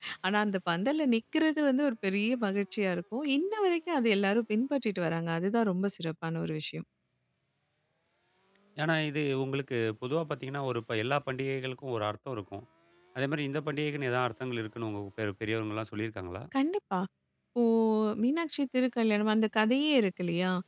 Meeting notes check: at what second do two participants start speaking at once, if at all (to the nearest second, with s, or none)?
none